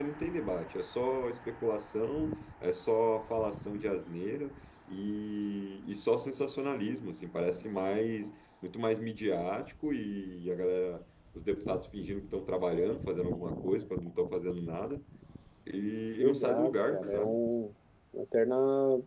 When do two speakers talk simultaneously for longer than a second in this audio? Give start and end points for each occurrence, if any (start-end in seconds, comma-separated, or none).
16.2-17.4